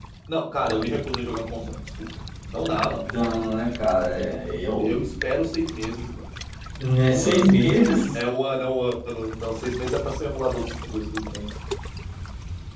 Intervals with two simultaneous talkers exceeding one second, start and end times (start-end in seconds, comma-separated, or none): none